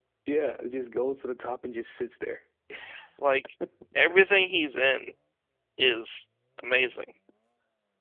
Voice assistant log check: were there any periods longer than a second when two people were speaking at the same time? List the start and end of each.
none

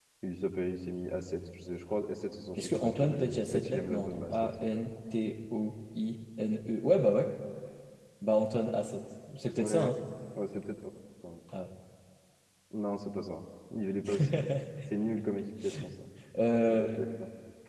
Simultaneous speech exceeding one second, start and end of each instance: 2.6-4.3

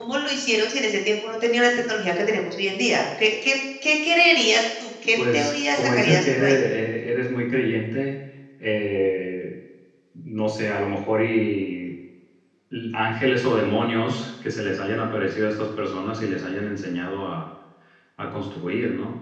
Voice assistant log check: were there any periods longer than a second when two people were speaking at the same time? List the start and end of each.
5.3-6.6

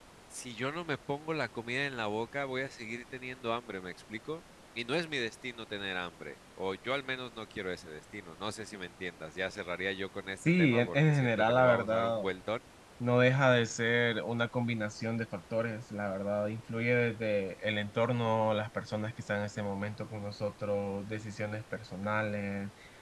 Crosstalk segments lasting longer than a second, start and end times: 10.4-12.2

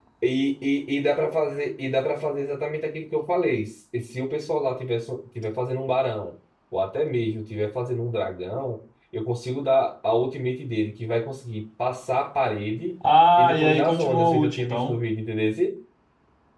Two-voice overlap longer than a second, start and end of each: 13.4-14.9

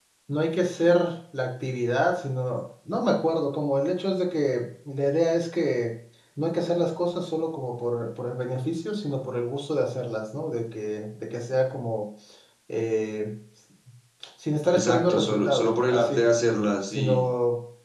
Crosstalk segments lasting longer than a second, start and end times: 14.7-16.2

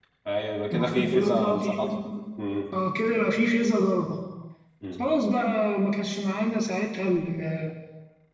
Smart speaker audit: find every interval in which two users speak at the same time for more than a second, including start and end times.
0.7-1.9

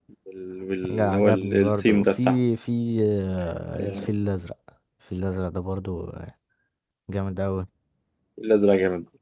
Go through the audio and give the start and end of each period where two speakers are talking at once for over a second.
0.9-2.4

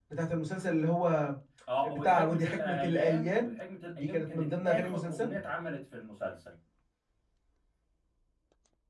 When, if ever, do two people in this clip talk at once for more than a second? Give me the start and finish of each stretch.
1.8-3.5, 4.0-5.3

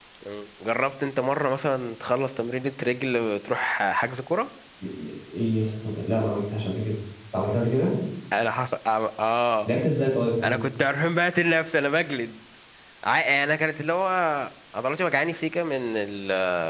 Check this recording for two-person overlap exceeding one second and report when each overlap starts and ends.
none

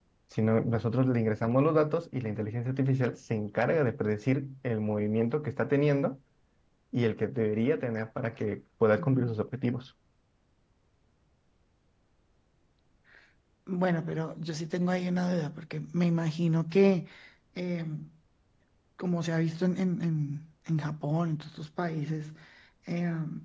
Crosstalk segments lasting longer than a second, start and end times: none

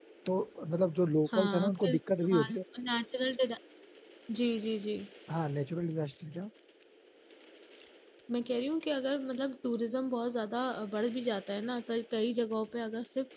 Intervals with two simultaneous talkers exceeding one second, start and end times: 1.3-2.6

